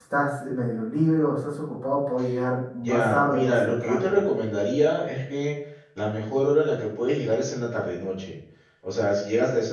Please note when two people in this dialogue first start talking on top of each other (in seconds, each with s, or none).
2.8 s